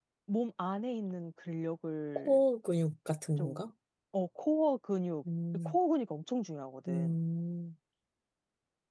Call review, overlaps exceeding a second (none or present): none